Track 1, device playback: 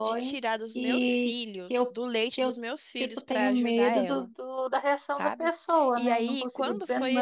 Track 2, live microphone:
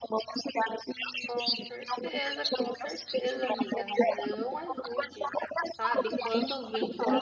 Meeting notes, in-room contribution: present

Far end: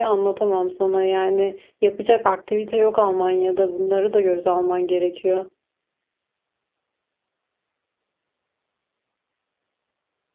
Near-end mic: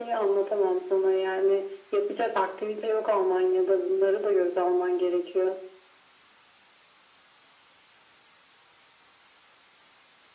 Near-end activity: none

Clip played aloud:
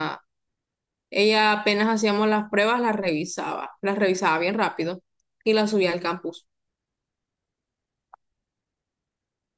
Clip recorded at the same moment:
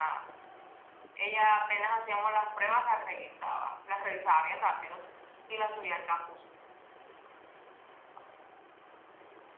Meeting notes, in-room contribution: none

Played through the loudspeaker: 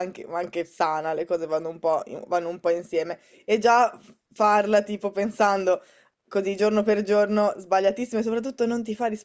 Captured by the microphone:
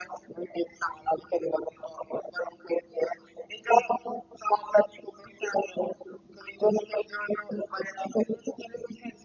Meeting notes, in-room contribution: none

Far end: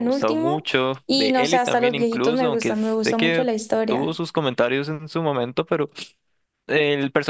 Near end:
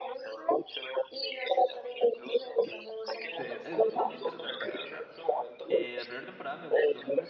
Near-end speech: present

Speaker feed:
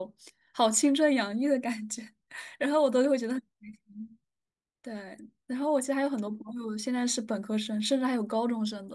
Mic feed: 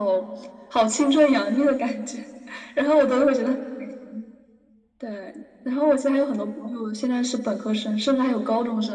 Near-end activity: none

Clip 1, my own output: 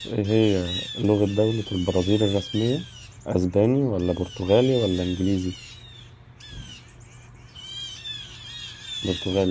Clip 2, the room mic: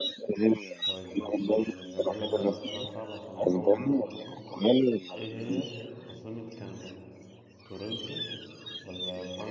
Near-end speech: present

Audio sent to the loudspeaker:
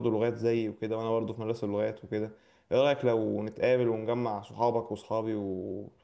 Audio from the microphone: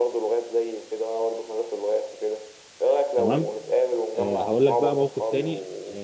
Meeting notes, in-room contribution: present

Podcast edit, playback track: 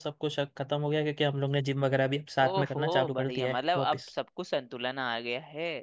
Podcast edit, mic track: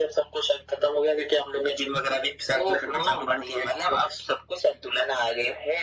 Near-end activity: none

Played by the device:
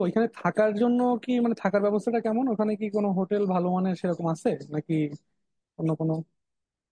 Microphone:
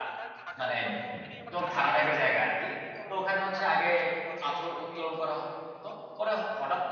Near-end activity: present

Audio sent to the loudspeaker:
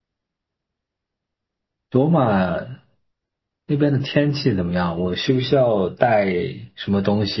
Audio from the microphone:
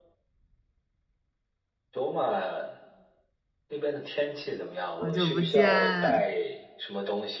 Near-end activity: present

